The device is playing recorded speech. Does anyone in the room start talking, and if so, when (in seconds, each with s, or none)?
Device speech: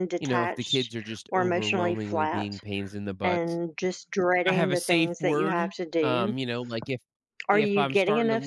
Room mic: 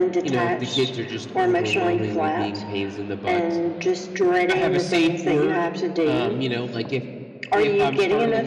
none